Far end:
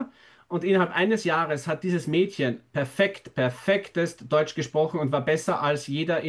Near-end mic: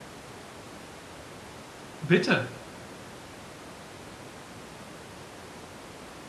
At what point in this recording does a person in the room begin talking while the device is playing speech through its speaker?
2.0 s

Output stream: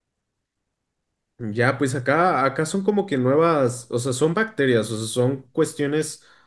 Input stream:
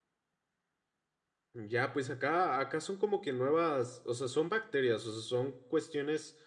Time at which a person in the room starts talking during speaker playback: none

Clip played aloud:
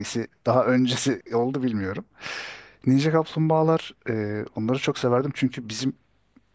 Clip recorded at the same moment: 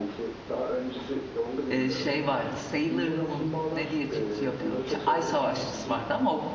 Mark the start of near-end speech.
1.7 s

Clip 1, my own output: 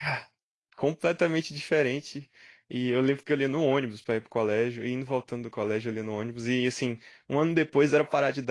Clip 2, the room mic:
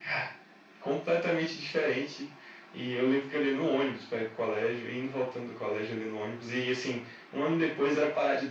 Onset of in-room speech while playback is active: none

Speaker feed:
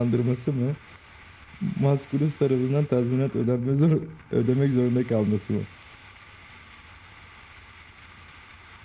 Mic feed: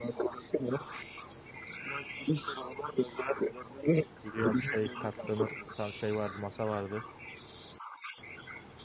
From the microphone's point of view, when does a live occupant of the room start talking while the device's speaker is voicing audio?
4.2 s

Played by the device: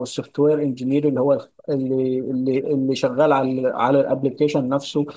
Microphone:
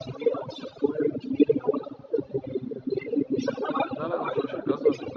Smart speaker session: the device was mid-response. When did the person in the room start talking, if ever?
4.0 s

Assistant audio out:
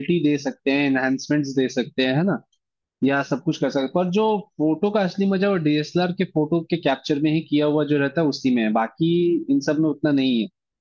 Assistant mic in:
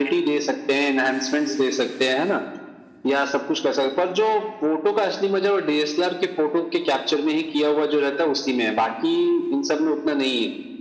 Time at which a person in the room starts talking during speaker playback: none

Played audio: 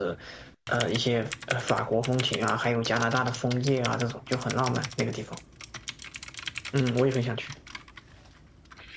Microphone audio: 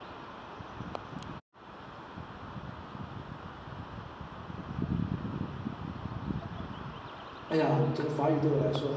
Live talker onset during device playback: 7.5 s

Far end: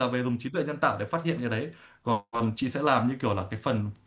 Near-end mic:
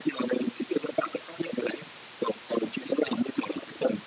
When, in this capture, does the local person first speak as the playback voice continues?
none

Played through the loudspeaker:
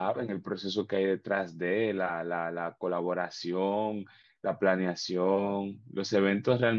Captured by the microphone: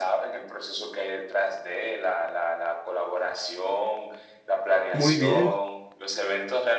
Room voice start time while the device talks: 4.9 s

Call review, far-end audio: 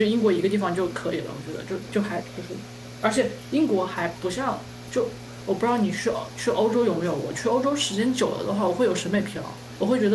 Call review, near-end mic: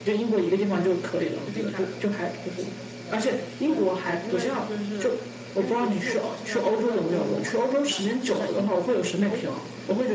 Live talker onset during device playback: 0.7 s

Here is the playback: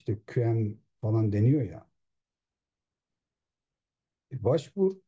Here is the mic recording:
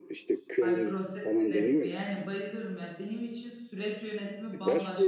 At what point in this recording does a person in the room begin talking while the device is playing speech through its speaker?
0.6 s

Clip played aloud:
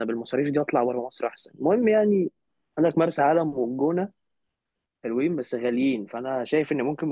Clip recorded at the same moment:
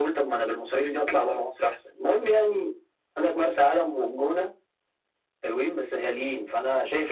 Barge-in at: none

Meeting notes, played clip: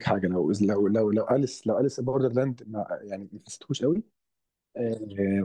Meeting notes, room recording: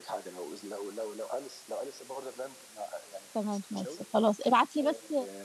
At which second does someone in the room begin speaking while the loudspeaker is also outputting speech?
3.3 s

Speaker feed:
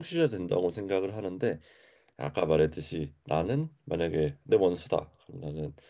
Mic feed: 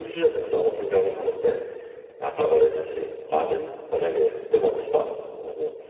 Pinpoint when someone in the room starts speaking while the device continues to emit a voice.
none

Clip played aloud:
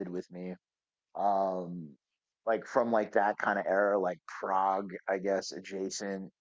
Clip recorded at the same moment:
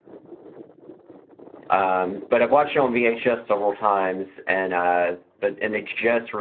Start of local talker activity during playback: 1.7 s

